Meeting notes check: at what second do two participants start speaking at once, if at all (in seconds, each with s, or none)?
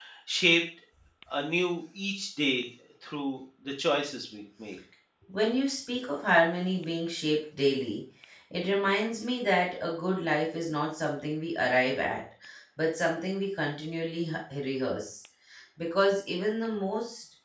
none